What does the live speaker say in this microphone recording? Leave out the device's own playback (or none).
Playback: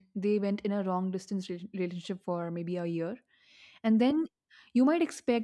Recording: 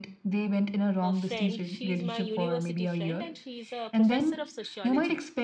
a friend, she's my university friend, and she's a professor of sociology.